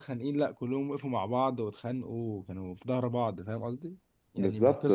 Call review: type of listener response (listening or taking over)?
listening